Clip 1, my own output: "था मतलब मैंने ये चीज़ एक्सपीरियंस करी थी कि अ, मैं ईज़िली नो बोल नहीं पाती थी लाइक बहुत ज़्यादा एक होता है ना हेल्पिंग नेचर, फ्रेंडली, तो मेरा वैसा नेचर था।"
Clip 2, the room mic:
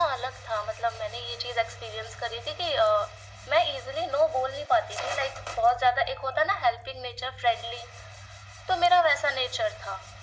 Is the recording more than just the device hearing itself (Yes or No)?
No